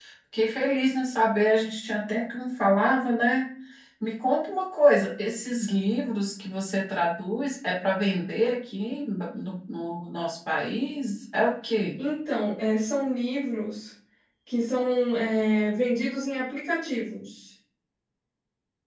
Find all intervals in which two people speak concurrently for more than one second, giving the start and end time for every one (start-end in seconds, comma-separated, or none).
none